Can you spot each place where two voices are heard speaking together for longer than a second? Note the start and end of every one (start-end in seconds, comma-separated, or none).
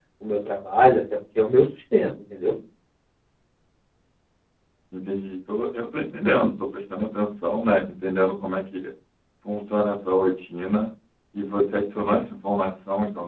none